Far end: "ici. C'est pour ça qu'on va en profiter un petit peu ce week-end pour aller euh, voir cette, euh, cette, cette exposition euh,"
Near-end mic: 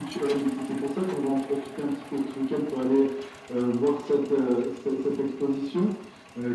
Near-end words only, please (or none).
none